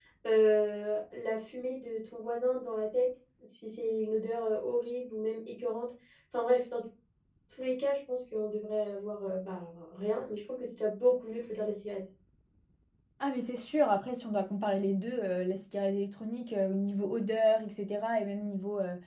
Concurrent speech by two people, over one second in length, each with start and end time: none

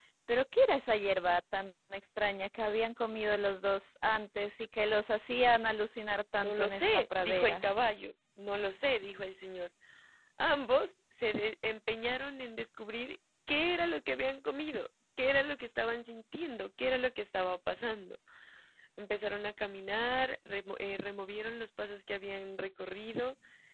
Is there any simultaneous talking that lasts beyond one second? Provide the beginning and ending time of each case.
6.4-7.7

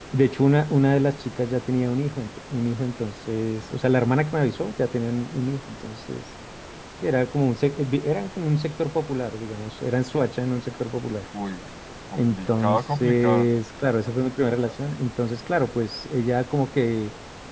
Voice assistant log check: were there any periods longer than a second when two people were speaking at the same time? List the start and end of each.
12.2-13.5

